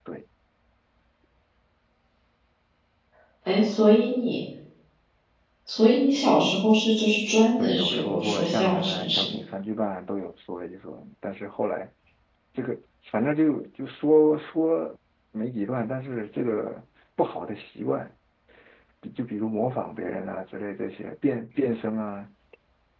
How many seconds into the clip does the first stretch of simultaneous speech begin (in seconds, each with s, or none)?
7.6 s